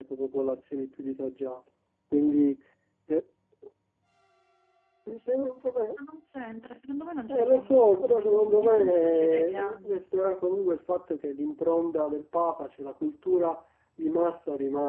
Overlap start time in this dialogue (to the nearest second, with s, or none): 7 s